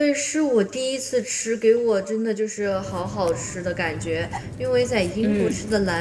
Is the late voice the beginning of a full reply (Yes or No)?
No